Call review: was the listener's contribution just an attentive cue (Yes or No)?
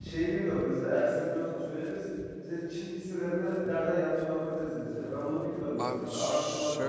No